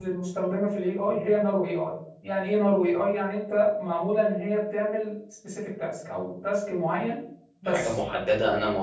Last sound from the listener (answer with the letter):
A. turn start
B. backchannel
A